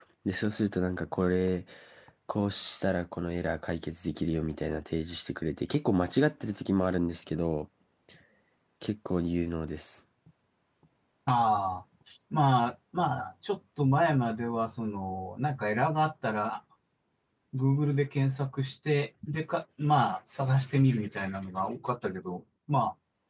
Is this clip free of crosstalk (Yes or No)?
Yes